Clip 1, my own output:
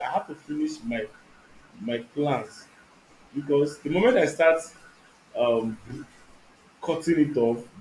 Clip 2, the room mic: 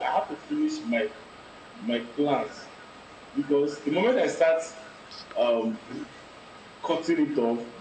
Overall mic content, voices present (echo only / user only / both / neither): echo only